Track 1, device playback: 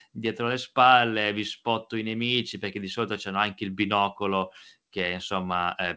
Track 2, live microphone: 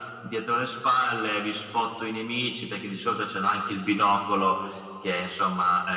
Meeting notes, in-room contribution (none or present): none